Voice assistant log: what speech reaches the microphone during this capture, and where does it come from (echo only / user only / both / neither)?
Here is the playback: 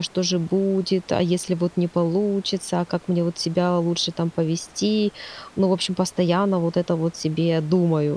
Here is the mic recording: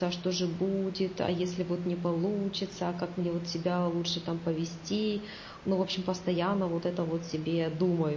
echo only